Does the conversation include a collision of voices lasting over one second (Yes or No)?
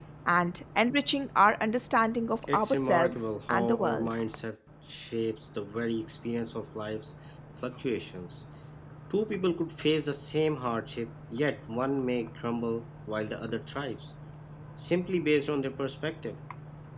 Yes